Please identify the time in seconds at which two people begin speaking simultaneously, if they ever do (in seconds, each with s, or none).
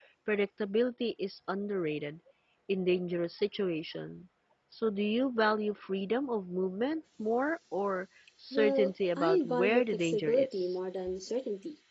8.5 s